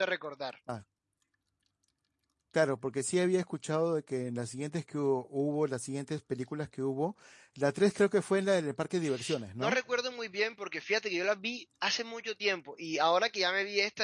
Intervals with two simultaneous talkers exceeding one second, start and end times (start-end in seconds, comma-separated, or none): none